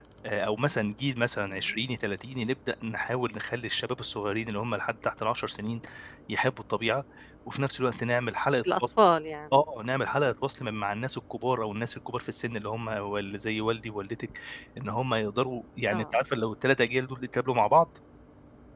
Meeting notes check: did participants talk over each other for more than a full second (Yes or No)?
No